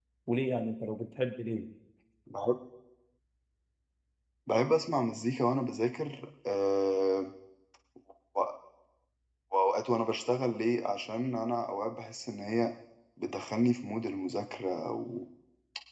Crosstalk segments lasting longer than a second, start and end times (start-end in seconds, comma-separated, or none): none